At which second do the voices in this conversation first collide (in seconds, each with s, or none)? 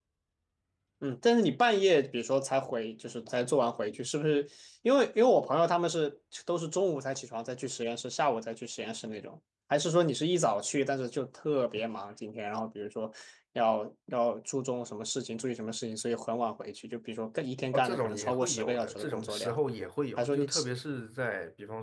17.7 s